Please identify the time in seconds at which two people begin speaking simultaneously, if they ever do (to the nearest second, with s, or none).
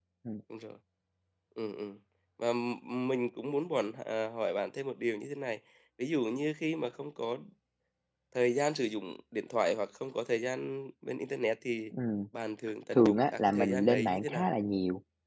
13 s